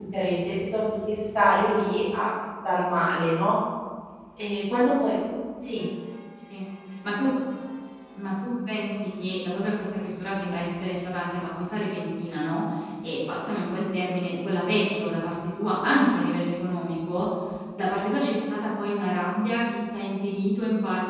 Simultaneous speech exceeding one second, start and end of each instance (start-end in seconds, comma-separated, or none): none